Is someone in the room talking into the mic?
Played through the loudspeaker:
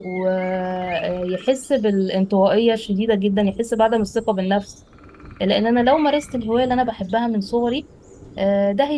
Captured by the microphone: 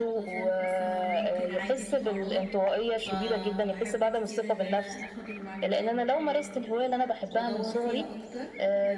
Yes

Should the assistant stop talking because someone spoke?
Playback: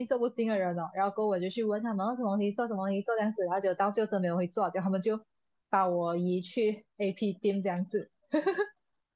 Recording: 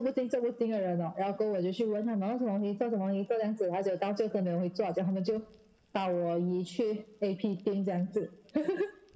No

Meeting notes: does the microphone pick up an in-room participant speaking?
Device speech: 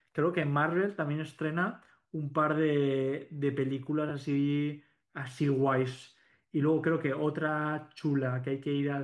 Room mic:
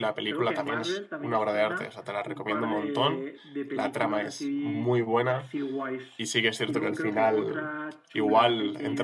Yes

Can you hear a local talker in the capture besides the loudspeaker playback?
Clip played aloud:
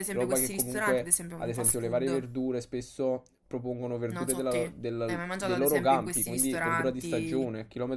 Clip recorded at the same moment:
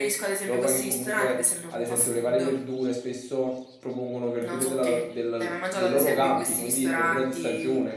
No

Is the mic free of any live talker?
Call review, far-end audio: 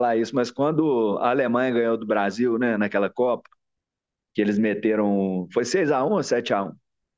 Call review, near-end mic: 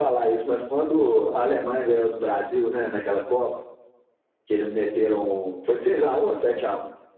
Yes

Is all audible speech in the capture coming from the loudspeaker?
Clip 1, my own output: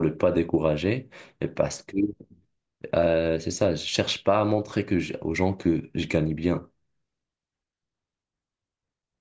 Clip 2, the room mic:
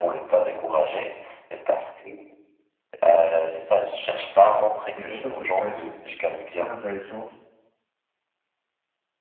No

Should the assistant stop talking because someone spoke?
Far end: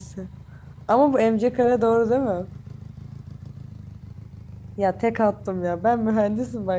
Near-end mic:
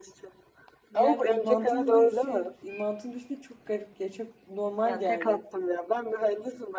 Yes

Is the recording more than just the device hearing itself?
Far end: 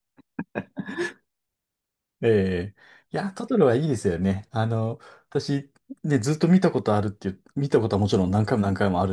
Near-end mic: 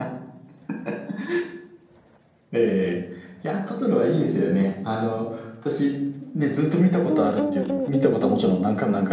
Yes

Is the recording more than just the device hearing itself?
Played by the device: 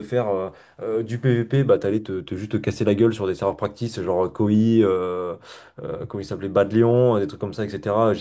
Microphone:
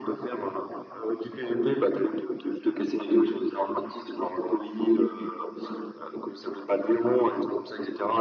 No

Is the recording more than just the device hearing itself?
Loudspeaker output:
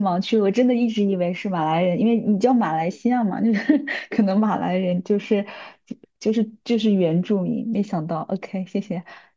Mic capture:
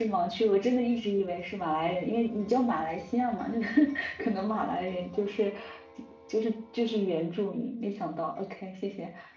No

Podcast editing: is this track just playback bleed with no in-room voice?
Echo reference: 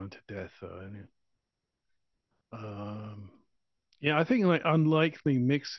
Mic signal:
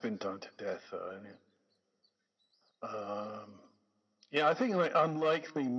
Yes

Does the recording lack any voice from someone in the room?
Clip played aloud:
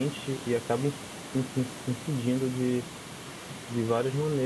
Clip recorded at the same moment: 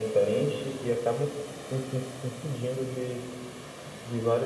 Yes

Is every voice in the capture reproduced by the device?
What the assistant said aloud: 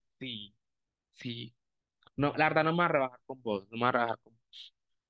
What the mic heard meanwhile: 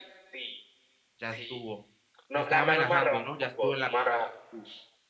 No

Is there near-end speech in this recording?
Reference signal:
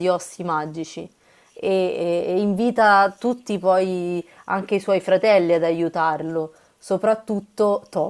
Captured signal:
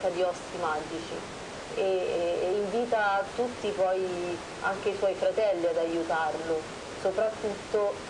No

